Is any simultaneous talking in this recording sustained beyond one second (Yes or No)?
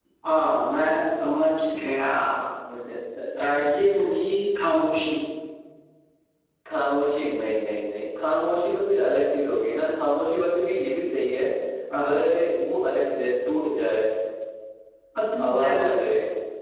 No